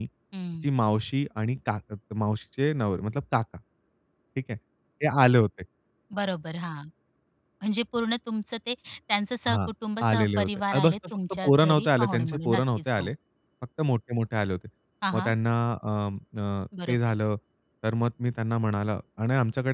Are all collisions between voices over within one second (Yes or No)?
No